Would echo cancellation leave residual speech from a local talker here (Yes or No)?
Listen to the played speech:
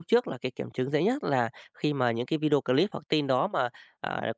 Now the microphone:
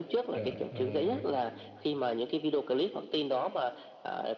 Yes